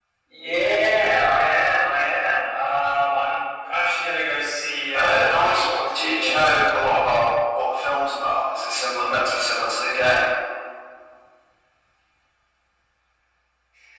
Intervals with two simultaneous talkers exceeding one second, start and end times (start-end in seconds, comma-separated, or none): 4.9-6.7